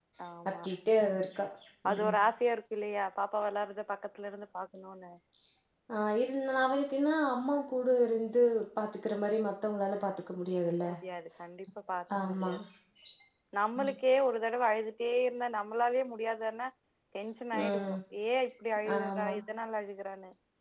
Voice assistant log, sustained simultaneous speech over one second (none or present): none